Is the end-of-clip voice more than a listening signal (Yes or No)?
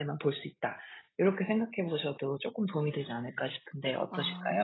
Yes